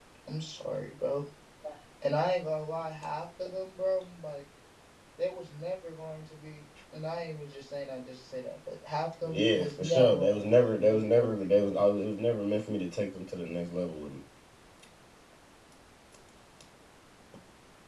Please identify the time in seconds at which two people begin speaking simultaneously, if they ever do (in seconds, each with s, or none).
9.2 s